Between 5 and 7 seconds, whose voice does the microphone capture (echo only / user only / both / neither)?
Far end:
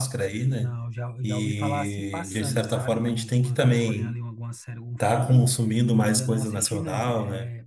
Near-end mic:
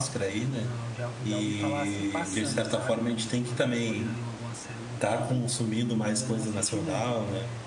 echo only